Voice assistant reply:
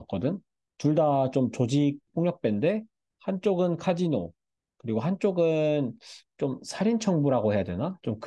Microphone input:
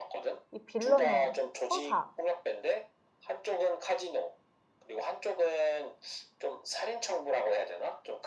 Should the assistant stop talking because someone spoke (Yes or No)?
Yes